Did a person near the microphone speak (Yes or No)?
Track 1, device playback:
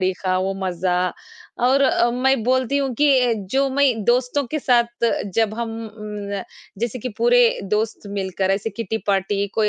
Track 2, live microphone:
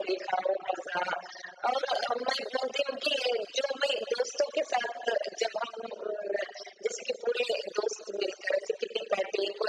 No